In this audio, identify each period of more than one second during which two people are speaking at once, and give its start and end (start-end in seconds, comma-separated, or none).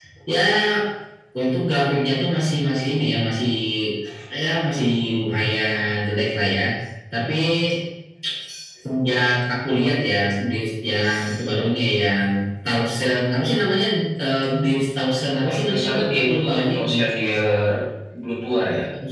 15.4-17.0